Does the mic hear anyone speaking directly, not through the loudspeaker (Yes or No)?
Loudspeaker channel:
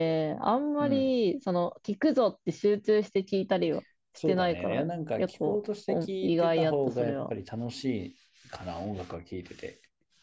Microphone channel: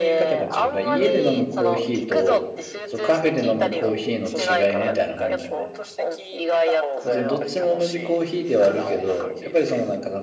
Yes